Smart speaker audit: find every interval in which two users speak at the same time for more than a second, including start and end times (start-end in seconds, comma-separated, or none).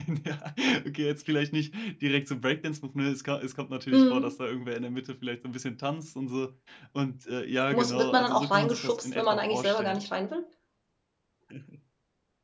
7.7-10.0